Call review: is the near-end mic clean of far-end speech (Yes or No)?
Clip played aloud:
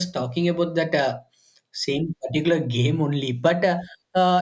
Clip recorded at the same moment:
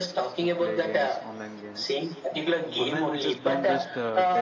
No